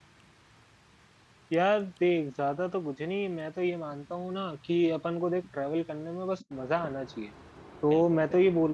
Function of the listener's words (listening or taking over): listening